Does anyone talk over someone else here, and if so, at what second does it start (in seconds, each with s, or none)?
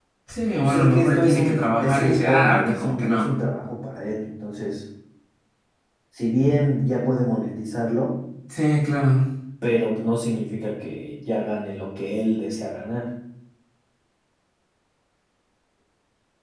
0.6 s